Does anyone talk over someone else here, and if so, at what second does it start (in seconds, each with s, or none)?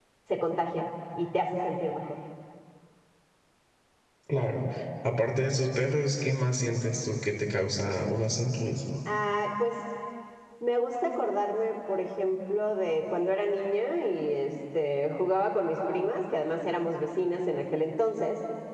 none